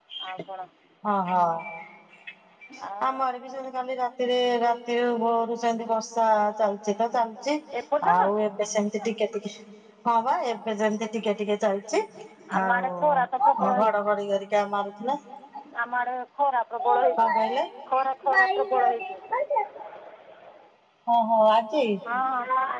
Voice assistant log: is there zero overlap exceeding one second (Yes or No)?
No